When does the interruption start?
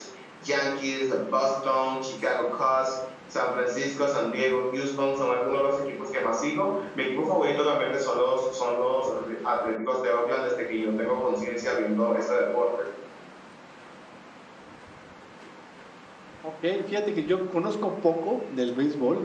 none

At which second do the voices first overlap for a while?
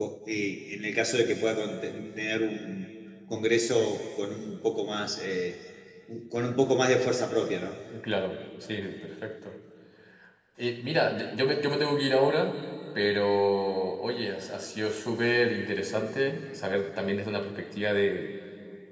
none

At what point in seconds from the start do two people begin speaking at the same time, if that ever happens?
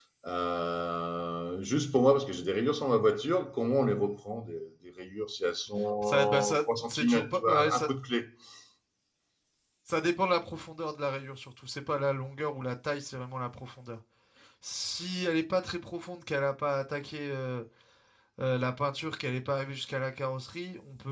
6.0 s

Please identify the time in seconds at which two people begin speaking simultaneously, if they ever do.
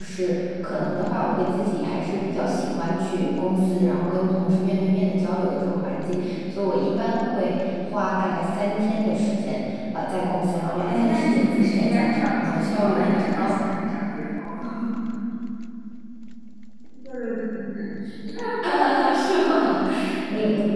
10.9 s

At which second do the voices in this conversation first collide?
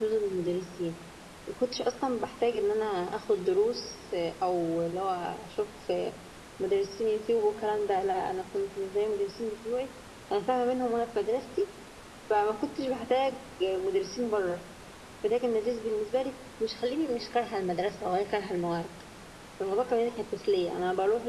none

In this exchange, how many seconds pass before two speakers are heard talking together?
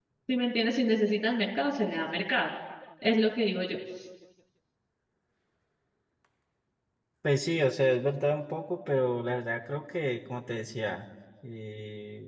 none

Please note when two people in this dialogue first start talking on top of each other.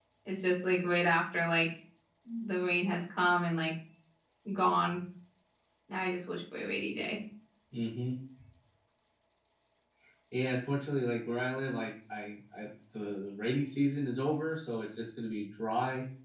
none

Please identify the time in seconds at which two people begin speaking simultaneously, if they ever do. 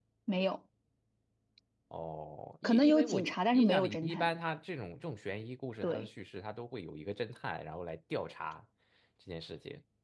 2.6 s

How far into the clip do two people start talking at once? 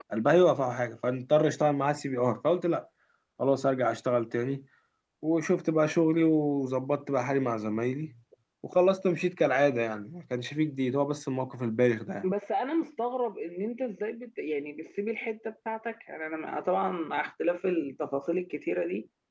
none

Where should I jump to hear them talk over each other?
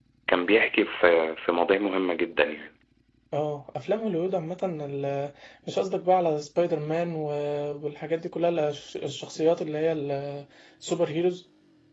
none

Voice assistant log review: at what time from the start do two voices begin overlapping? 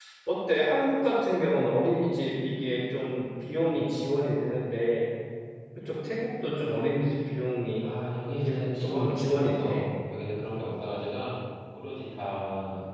8.4 s

